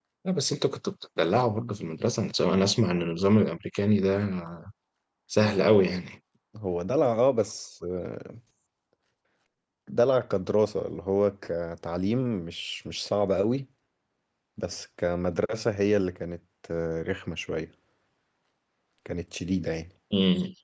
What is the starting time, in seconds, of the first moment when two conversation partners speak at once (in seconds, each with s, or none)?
none